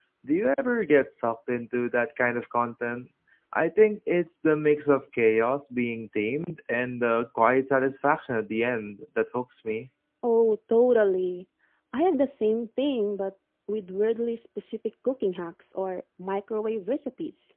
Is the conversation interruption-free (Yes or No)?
Yes